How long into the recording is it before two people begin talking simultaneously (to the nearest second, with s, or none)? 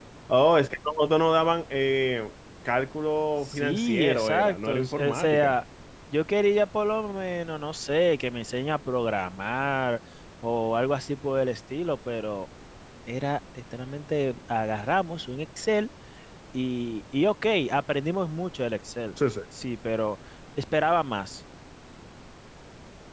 3 s